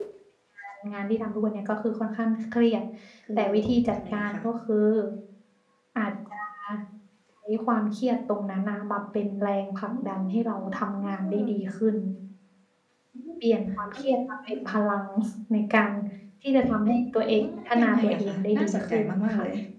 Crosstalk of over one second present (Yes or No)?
Yes